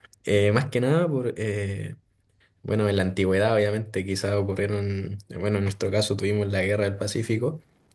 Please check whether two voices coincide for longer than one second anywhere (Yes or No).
No